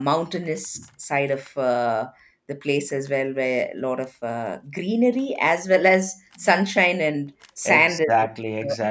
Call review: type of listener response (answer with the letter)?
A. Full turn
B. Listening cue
A